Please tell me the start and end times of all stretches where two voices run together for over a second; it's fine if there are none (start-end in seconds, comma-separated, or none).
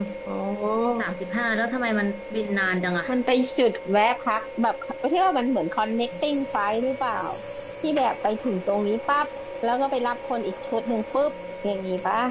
none